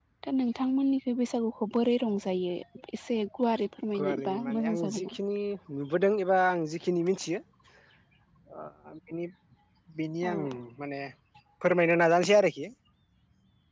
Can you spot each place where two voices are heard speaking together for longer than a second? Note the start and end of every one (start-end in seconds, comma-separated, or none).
4.0-5.2